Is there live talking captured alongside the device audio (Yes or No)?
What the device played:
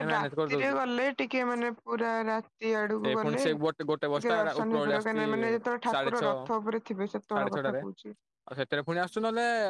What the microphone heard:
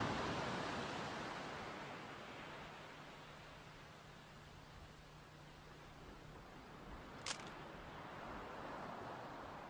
No